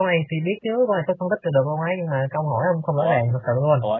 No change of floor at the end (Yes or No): No